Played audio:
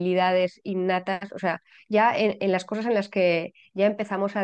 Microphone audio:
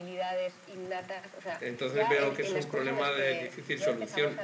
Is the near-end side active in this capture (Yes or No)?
Yes